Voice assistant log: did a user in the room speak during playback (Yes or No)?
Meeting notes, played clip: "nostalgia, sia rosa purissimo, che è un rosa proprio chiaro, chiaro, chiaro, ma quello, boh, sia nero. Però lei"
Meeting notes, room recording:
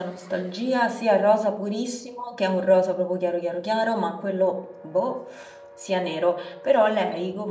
No